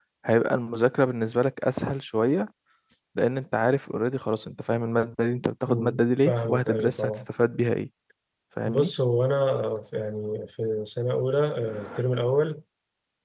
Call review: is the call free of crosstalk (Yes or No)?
No